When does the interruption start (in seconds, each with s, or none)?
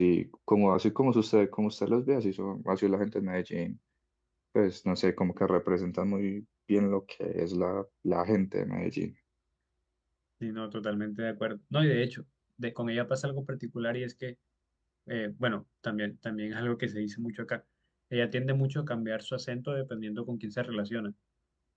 none